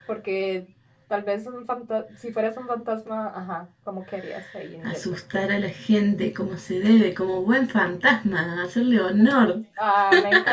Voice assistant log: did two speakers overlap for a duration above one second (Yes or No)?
No